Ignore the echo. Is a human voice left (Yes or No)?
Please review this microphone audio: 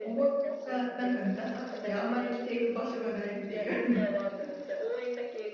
Yes